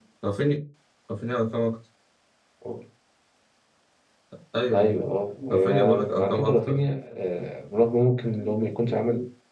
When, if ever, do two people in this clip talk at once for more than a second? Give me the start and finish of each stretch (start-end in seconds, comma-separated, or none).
5.5-6.9